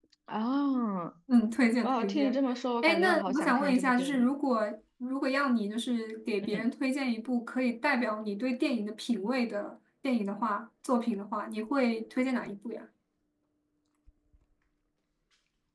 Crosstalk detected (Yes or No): Yes